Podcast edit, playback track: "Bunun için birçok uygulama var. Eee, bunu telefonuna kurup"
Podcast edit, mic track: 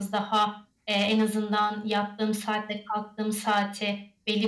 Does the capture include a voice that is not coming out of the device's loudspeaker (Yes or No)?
Yes